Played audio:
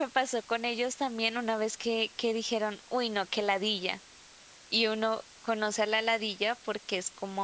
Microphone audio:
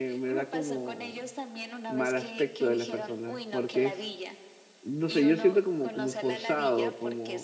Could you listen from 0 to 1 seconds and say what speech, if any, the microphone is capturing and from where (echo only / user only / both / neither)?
both